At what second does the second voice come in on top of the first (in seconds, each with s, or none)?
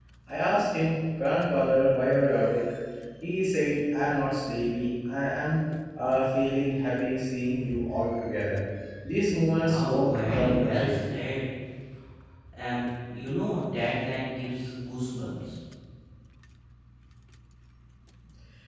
9.5 s